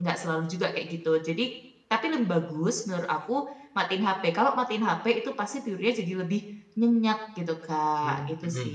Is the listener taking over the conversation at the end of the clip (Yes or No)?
Yes